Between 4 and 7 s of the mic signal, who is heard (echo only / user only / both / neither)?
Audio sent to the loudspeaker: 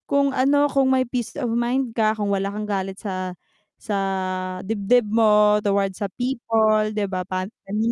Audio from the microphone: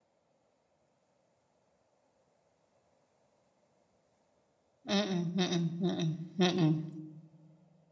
user only